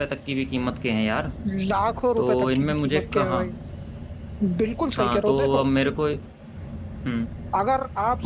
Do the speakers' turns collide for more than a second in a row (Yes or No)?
Yes